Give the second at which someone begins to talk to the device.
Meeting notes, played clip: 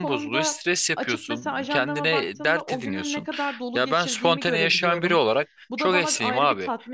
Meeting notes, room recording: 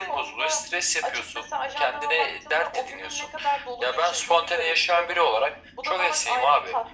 none

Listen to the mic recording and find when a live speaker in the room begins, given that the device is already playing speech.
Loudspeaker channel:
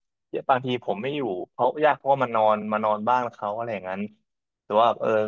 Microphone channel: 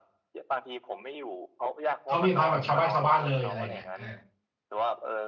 2.0 s

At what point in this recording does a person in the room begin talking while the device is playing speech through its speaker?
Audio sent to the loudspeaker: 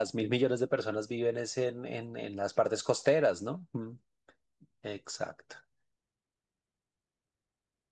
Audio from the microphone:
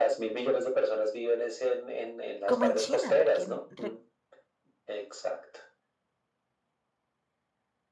2.5 s

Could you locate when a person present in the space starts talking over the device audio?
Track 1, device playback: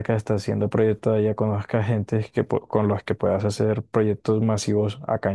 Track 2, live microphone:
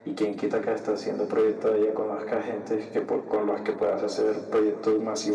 none

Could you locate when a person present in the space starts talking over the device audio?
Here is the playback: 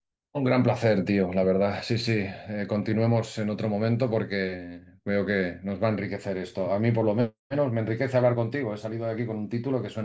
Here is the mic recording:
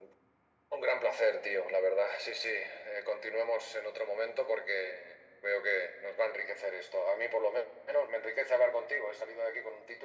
none

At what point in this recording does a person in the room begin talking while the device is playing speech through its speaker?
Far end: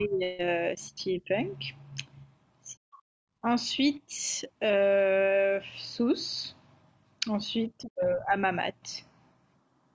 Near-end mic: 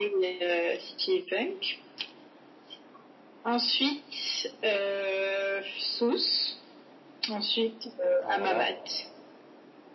8.2 s

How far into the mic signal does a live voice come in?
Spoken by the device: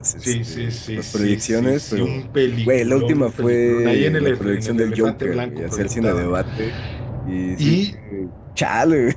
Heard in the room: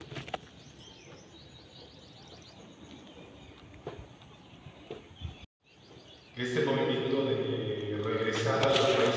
6.3 s

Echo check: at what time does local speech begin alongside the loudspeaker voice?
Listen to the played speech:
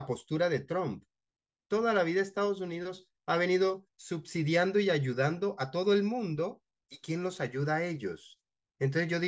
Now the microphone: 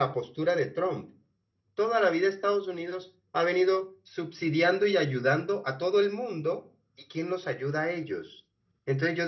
none

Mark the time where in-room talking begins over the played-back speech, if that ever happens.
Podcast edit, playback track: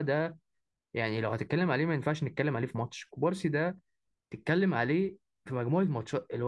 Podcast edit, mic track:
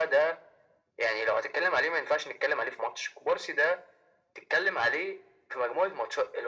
none

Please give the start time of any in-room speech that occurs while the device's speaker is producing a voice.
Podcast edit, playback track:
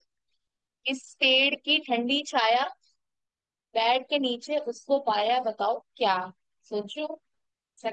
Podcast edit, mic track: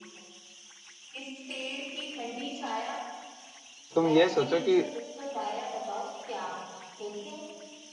3.9 s

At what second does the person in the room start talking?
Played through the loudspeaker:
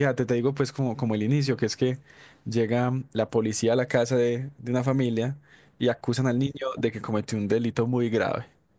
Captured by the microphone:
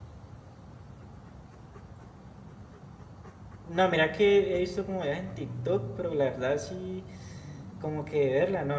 3.6 s

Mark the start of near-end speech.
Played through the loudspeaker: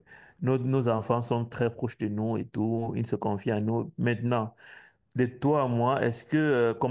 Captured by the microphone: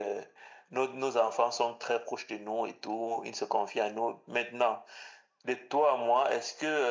none

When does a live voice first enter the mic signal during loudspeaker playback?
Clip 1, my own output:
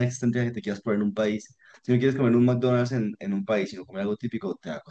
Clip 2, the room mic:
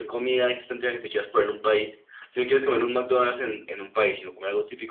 none

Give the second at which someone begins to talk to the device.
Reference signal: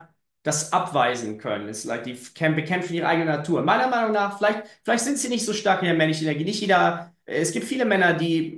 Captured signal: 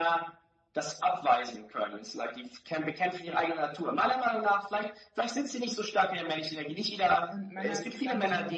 7.3 s

